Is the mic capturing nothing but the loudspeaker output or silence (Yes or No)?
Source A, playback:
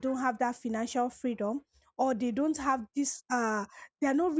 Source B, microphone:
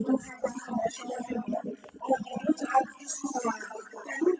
Yes